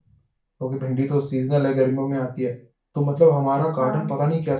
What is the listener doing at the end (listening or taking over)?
listening